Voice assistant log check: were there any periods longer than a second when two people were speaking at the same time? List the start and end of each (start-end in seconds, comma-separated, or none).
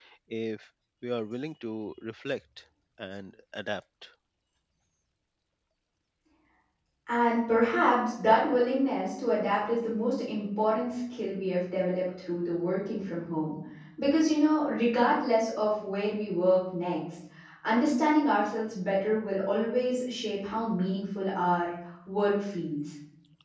none